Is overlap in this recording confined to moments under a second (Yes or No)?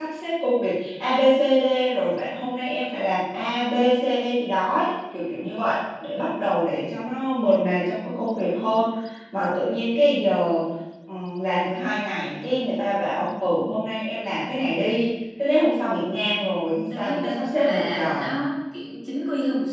No